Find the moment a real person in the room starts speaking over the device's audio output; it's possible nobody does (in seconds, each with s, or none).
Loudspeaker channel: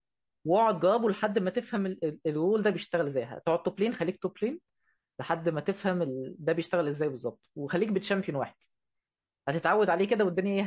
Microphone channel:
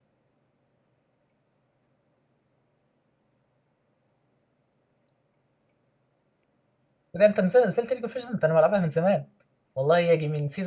7.1 s